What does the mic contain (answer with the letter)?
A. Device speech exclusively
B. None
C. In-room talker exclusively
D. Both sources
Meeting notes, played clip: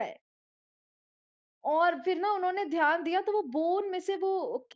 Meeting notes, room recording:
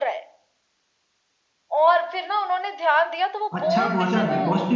D